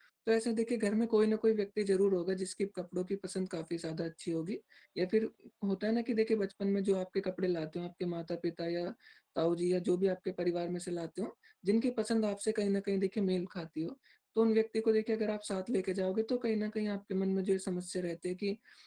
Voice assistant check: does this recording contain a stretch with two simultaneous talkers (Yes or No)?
No